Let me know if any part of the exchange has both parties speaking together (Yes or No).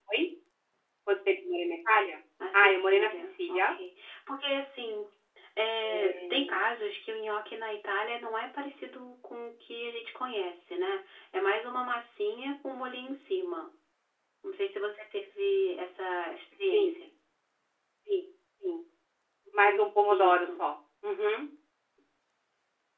Yes